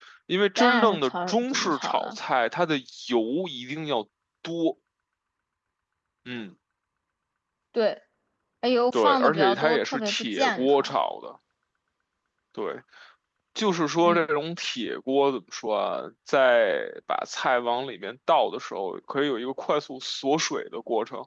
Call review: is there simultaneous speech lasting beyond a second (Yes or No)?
Yes